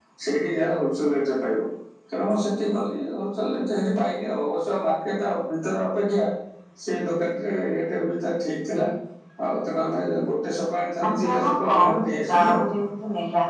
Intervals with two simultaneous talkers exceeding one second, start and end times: 11.1-12.7

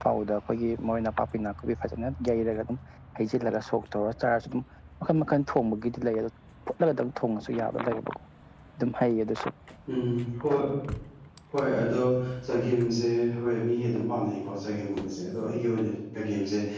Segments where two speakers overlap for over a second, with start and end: none

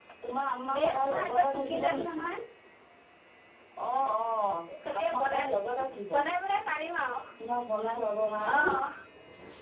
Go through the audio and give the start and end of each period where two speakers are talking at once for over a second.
0.7-2.2

